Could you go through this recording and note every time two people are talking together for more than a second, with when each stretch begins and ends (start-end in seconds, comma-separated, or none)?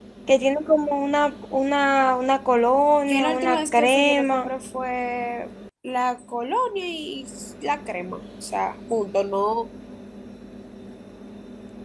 3.1-4.5